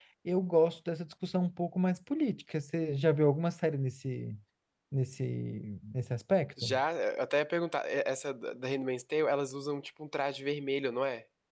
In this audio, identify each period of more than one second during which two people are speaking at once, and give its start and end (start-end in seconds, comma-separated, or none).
none